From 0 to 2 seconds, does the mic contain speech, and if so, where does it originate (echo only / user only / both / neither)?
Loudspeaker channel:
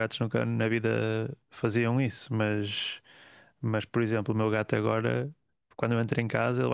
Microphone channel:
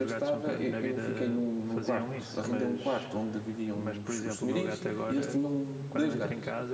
both